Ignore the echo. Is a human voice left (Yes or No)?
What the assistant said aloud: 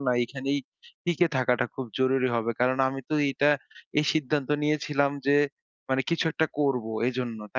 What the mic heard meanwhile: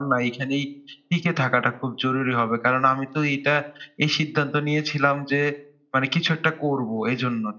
No